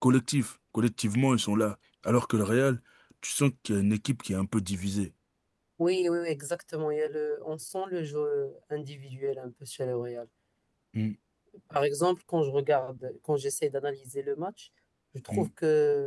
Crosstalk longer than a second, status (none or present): none